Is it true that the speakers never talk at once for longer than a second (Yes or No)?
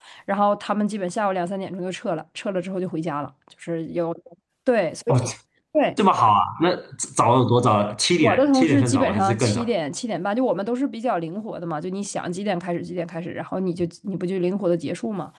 No